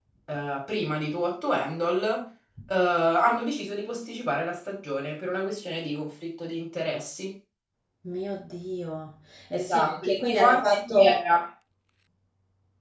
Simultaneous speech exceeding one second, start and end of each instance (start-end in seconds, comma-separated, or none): 9.6-11.2